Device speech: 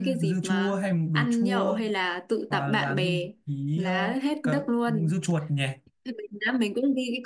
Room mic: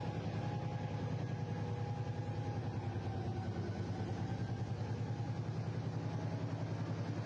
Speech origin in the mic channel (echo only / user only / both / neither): neither